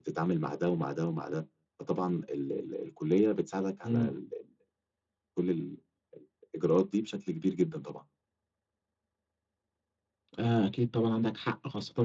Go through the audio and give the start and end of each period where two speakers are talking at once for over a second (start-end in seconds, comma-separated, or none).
none